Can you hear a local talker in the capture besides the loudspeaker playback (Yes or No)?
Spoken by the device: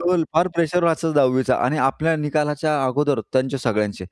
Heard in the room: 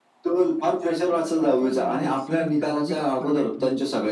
Yes